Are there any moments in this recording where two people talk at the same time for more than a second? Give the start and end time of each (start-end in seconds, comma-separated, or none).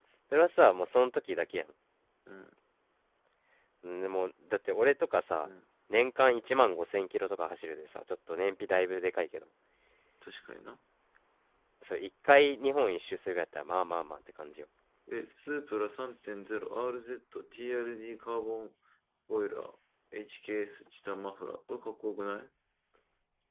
none